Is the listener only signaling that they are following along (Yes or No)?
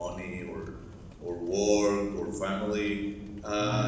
No